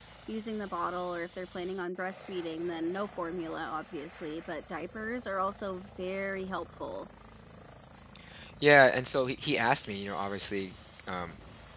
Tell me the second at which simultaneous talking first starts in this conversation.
none

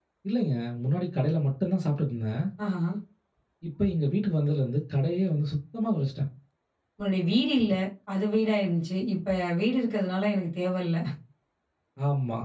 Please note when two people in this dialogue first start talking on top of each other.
none

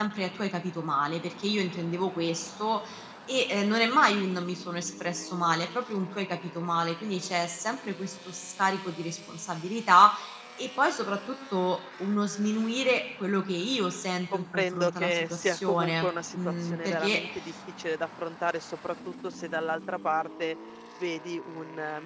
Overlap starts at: 14.3 s

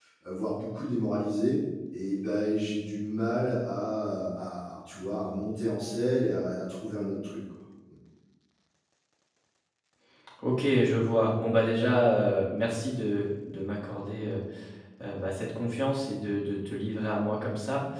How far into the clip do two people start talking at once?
none

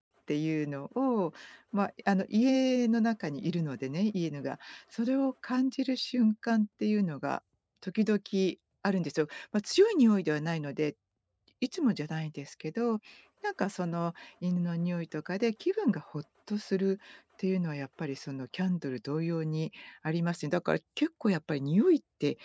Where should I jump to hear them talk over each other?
none

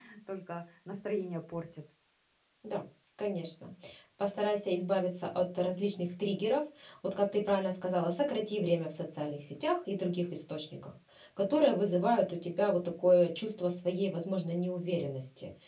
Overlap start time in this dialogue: none

